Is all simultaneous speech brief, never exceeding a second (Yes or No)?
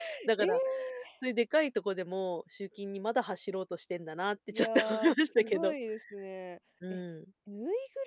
No